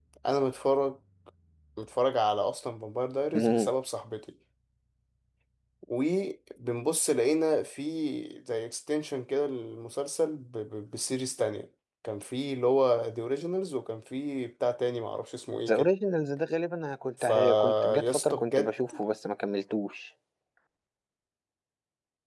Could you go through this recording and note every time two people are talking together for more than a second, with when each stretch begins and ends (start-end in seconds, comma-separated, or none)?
17.2-19.0